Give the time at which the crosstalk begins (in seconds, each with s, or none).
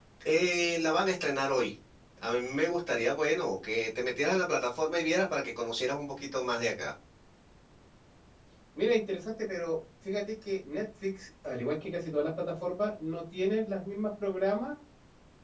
none